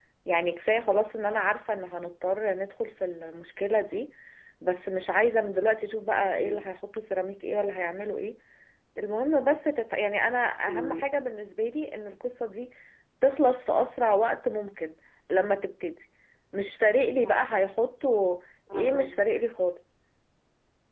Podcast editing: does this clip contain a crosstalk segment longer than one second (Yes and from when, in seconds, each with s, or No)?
No